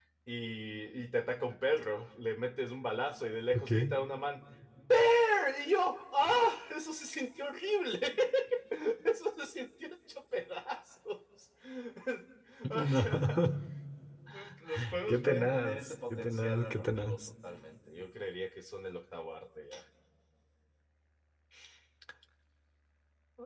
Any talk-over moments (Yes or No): Yes